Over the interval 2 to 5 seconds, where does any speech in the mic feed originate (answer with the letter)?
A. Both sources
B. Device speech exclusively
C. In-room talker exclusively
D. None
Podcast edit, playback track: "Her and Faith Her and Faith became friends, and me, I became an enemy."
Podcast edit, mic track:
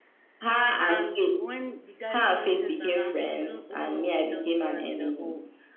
A